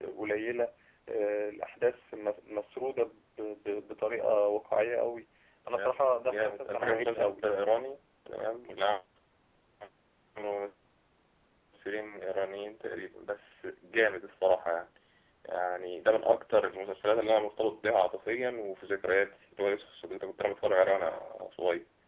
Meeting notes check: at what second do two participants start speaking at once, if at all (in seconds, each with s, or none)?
5.7 s